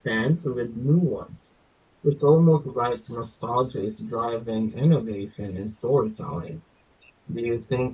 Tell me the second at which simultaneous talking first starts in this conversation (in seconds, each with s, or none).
none